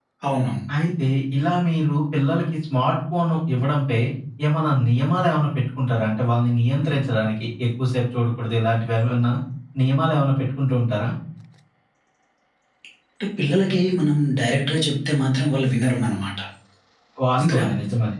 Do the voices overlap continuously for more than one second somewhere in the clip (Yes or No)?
No